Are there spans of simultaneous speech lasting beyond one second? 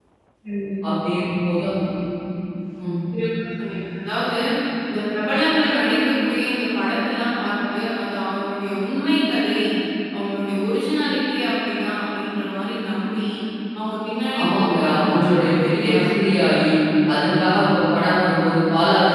Yes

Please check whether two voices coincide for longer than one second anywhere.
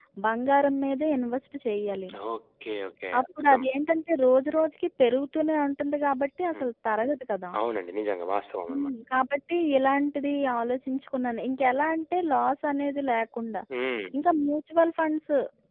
No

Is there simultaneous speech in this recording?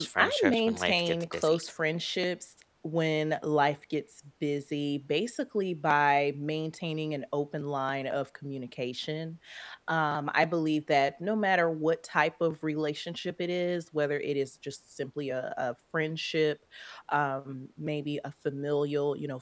Yes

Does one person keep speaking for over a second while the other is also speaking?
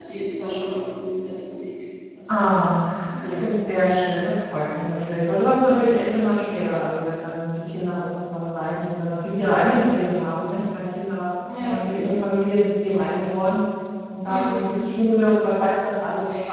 No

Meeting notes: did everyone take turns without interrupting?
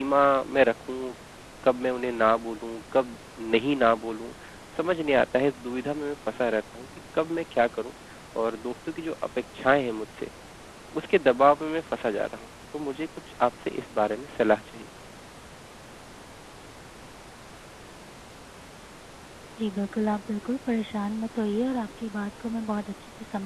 Yes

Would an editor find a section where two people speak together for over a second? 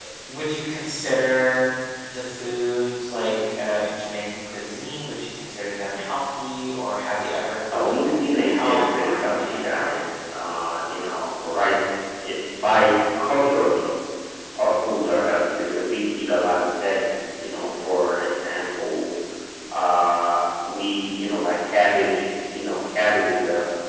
Yes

